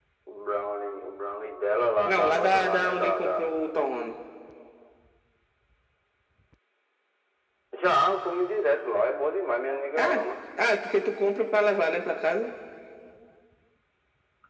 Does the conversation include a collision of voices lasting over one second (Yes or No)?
Yes